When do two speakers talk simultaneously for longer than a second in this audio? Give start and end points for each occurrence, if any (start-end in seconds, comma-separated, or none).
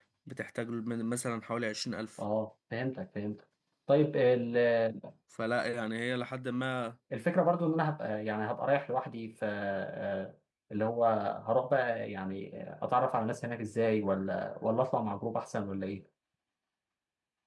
none